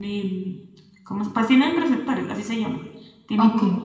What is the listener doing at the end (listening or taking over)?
listening